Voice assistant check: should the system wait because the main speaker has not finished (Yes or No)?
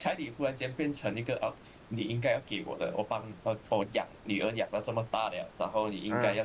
Yes